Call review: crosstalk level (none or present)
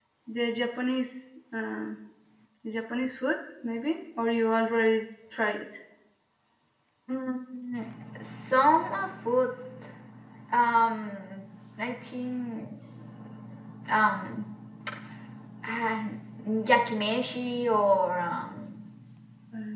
none